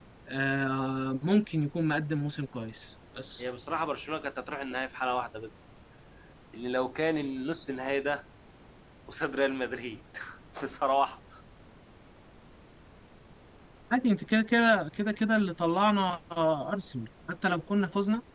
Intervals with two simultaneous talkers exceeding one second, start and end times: none

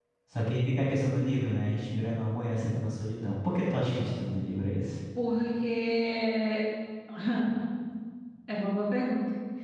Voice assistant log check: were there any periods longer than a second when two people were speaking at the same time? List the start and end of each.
none

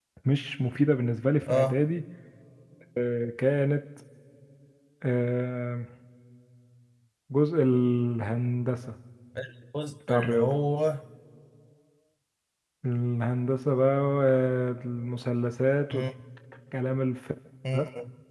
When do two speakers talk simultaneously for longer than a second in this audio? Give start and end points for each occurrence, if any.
none

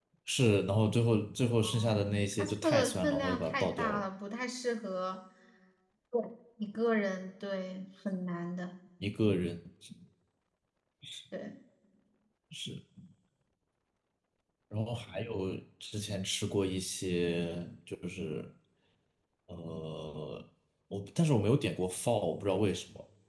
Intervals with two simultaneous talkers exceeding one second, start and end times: 1.5-4.0

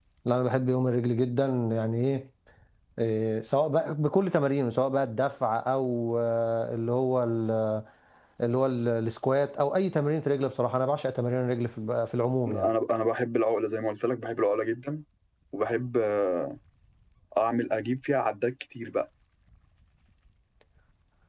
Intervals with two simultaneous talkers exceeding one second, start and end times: none

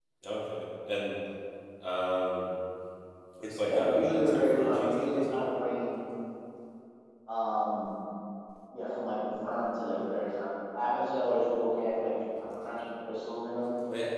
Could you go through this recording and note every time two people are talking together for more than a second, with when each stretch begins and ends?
3.6-5.5

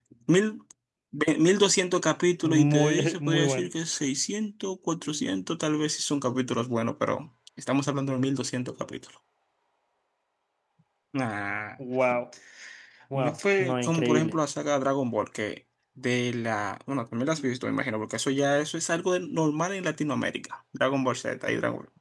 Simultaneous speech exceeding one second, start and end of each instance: 2.4-3.7, 13.1-14.3

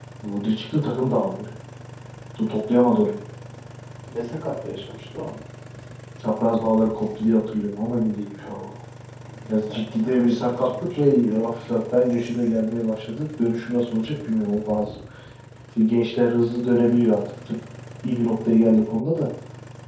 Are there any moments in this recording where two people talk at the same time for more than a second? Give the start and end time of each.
9.6-11.0

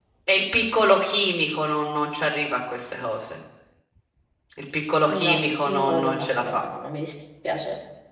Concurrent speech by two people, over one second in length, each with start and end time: 5.2-6.6

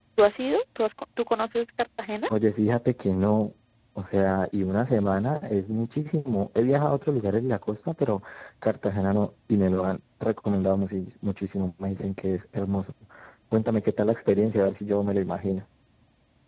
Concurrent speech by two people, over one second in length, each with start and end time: none

